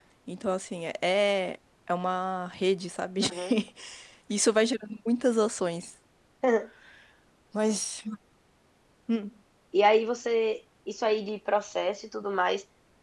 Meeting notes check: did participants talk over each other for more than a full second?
No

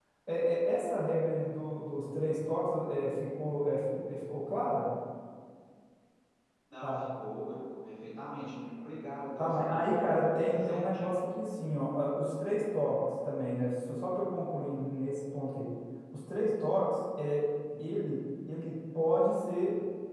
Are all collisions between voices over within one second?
No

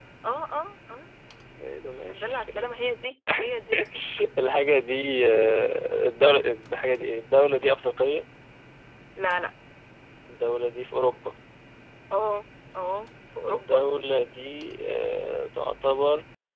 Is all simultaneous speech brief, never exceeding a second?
Yes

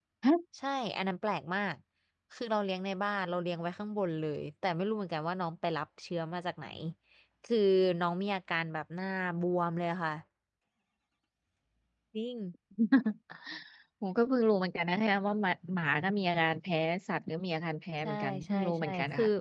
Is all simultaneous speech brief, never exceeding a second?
No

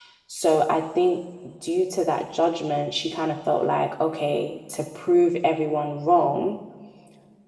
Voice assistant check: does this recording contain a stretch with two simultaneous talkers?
No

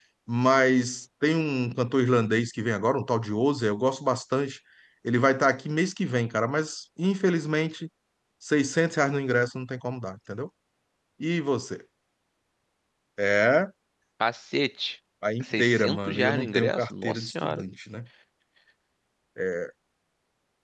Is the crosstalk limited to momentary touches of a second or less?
No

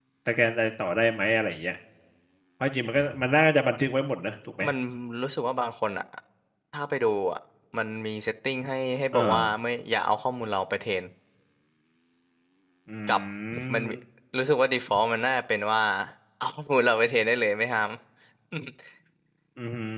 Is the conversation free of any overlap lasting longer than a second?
Yes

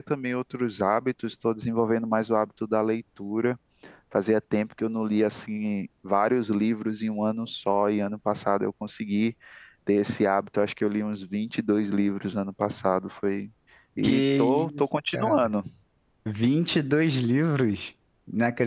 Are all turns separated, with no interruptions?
No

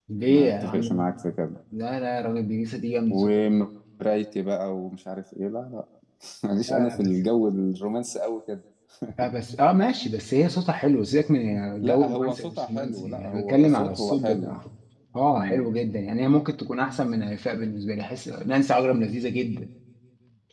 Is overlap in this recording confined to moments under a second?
No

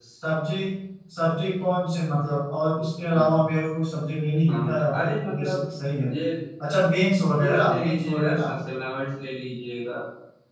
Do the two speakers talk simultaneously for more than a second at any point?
Yes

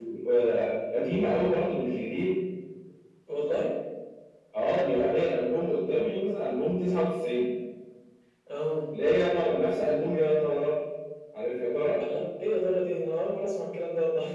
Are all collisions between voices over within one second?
Yes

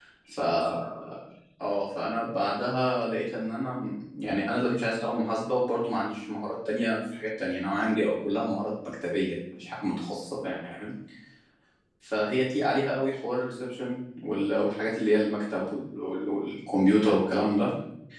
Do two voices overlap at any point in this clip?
No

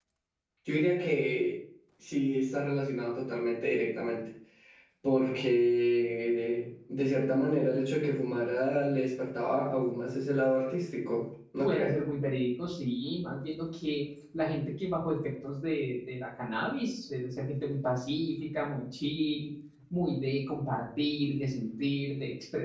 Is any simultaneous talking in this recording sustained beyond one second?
No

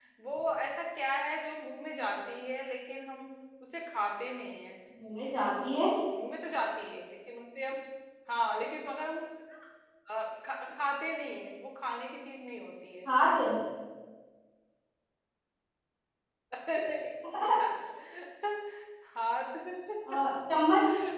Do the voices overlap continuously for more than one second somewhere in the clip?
No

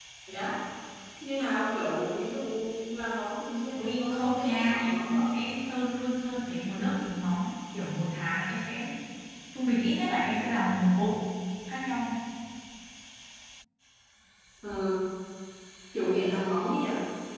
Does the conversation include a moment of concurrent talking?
Yes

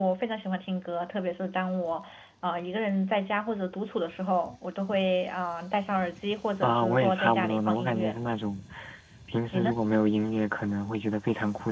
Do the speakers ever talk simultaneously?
Yes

